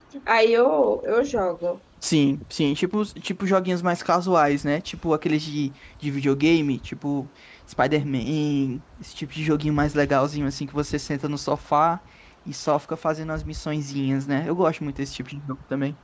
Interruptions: none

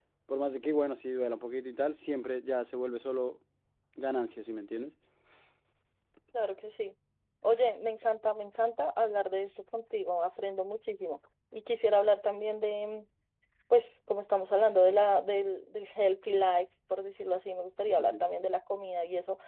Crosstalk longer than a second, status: none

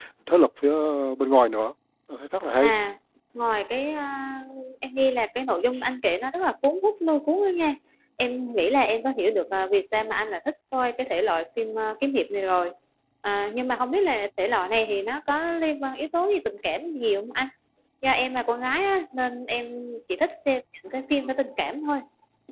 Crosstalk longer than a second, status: none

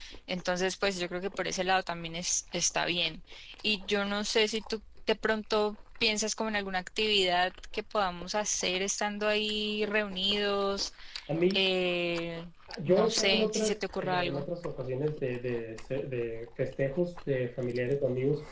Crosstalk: present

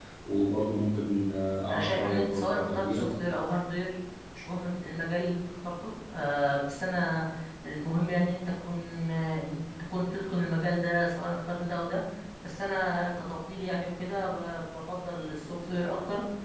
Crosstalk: present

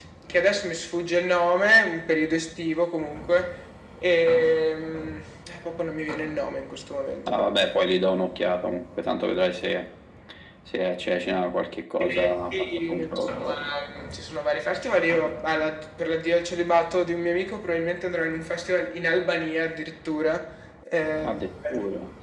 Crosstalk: present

